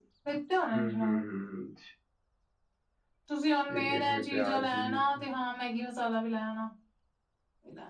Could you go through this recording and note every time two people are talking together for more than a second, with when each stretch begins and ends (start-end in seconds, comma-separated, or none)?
3.7-5.2